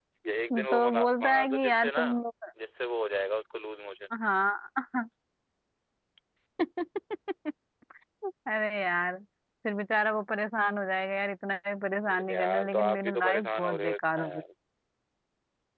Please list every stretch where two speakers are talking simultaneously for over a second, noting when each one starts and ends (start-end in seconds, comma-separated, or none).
0.5-2.0, 12.1-14.4